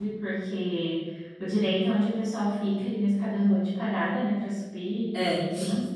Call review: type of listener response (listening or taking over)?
listening